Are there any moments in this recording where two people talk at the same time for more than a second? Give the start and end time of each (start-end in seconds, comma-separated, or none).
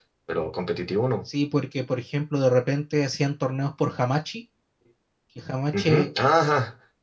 none